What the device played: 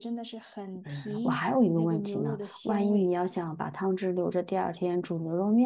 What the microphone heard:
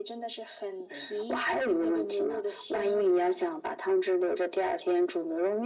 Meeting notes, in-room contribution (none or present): none